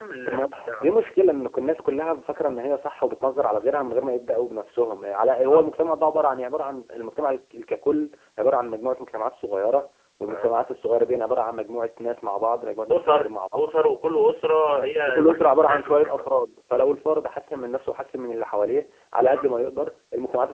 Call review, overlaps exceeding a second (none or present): present